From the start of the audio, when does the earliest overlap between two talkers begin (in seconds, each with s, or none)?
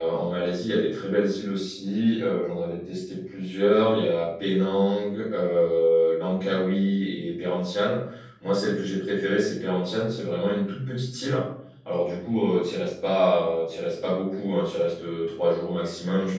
none